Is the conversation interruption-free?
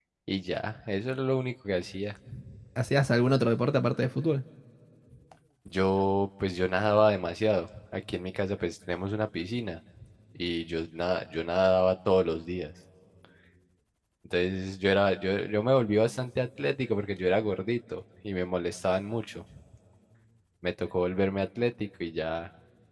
Yes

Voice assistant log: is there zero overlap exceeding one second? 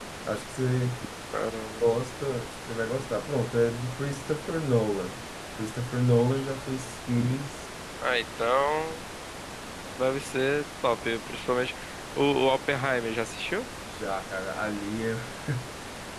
Yes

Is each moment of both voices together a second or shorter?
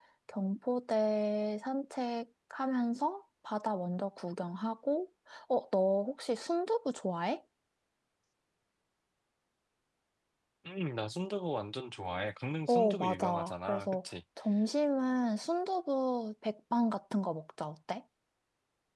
No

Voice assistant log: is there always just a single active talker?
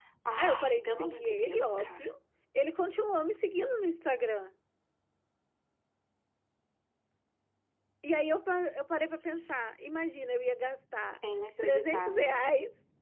No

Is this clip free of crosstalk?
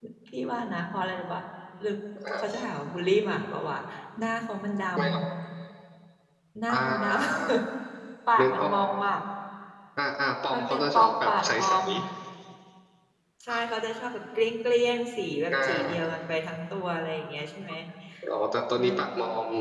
No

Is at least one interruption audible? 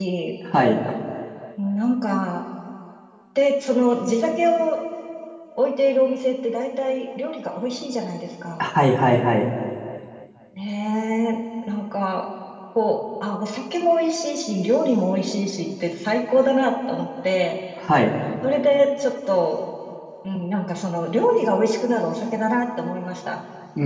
No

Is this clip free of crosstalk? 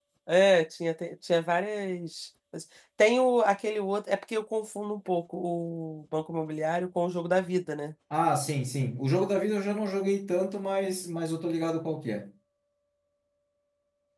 Yes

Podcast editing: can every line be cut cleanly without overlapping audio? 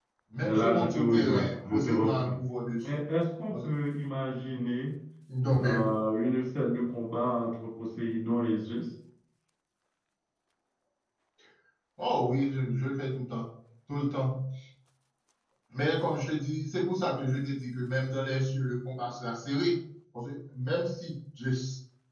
No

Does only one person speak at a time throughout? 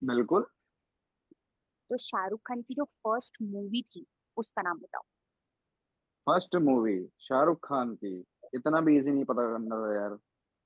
Yes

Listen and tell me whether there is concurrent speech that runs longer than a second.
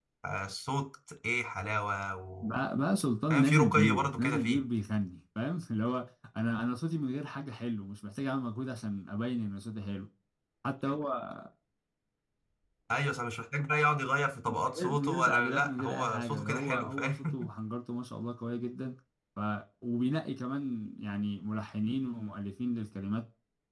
Yes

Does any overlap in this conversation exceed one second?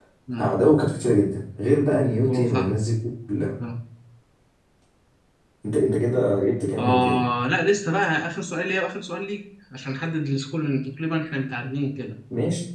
No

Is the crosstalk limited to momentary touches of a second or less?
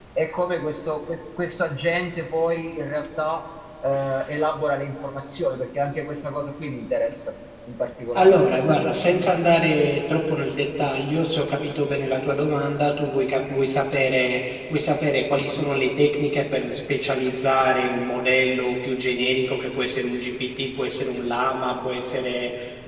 Yes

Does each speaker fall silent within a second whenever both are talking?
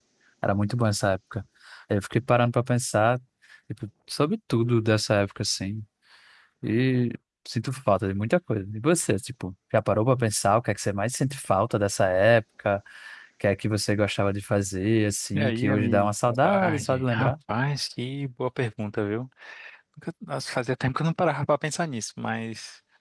No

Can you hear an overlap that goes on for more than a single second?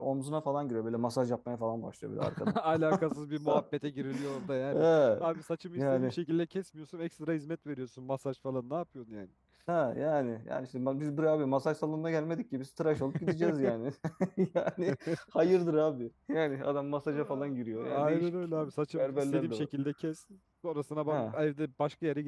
Yes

